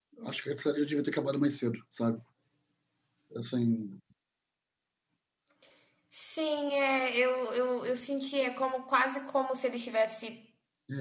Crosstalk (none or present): none